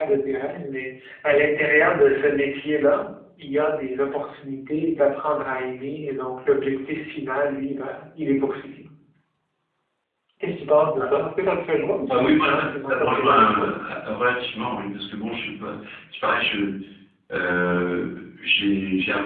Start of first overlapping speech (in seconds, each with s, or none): 12.1 s